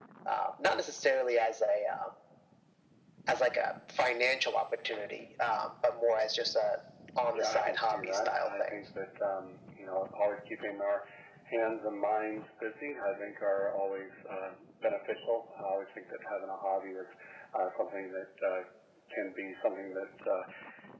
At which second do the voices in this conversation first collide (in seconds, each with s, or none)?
7.3 s